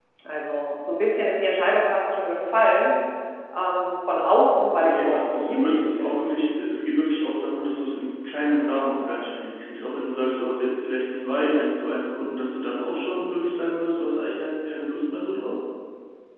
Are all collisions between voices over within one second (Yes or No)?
No